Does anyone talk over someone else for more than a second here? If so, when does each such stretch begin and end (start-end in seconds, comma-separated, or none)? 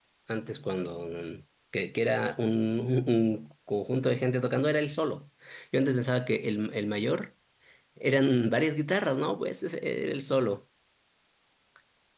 none